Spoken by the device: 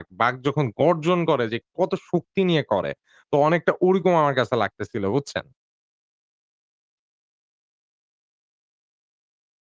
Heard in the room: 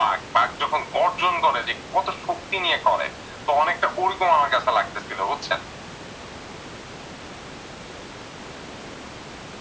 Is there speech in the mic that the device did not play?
No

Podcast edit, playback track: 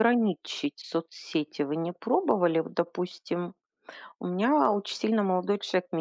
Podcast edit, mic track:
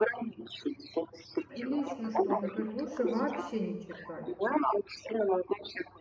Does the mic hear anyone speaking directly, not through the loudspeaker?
Yes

